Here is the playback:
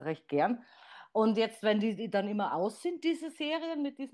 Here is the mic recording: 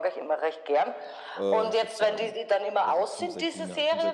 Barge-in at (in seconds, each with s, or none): 1.4 s